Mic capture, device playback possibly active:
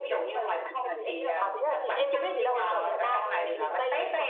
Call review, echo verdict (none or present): present